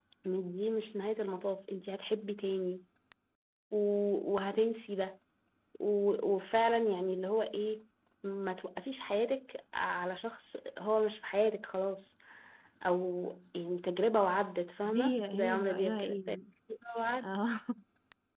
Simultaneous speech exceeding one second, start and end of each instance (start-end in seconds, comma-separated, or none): 15.0-16.4